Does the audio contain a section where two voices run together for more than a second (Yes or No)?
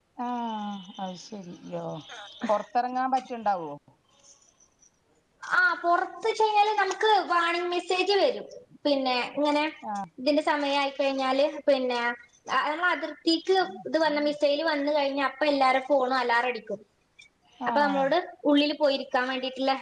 No